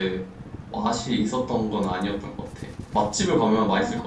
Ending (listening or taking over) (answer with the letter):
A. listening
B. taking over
B